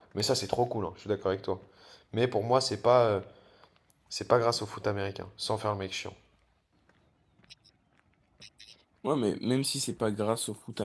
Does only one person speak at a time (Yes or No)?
Yes